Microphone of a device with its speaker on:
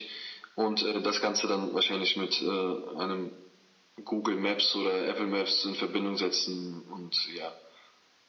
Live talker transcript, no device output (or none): none